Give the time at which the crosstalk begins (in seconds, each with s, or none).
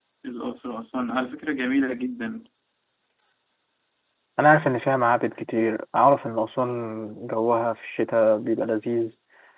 none